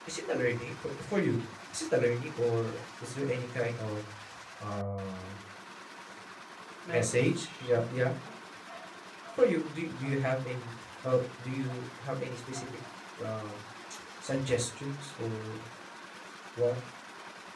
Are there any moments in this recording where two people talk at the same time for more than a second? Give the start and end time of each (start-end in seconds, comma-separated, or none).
6.9-8.1